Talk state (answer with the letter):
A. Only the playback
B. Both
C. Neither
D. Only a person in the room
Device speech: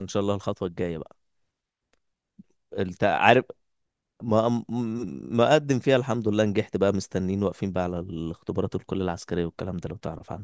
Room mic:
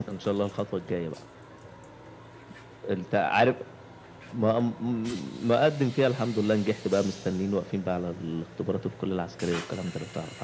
A